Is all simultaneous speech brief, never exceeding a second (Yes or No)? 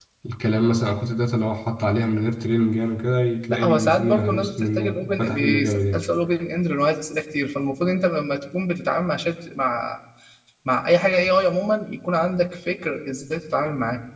No